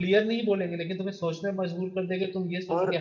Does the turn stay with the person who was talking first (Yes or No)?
No